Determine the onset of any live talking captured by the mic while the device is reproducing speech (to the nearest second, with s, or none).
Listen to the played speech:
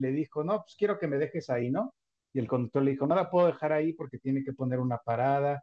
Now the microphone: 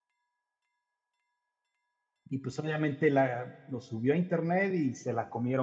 2 s